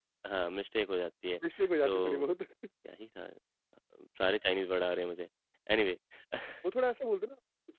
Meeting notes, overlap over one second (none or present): none